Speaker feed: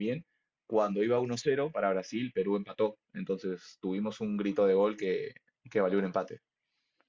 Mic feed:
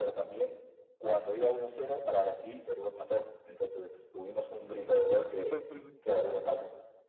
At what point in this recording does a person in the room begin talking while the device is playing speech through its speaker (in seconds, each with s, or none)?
4.5 s